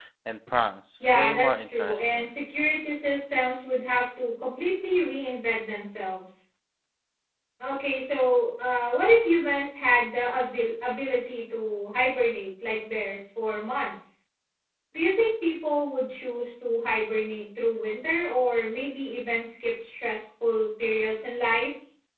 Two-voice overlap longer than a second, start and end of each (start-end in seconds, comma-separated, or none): 1.0-2.3